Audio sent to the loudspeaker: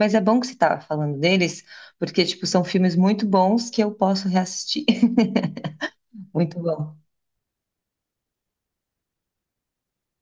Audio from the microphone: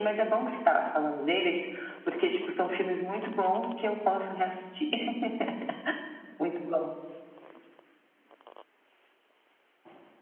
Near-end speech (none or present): none